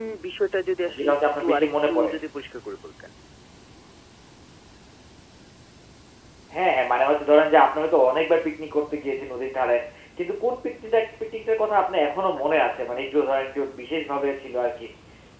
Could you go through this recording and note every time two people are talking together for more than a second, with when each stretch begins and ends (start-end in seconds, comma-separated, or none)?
0.8-2.1